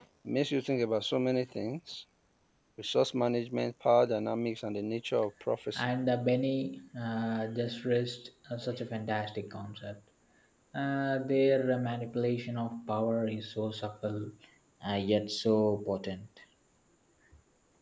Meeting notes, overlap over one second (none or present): none